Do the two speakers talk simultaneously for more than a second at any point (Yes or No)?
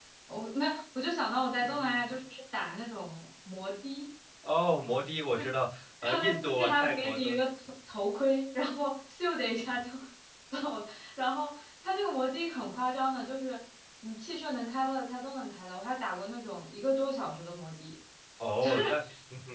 Yes